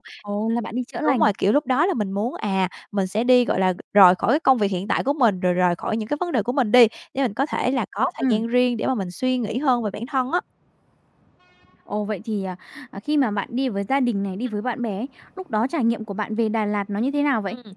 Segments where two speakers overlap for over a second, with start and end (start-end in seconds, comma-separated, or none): none